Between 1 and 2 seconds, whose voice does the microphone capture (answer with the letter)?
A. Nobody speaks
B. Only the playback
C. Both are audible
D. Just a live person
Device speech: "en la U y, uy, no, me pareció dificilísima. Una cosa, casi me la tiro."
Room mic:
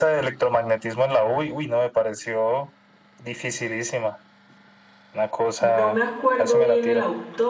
B